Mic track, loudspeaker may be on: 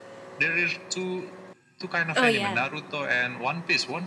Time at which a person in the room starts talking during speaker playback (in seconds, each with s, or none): 2.2 s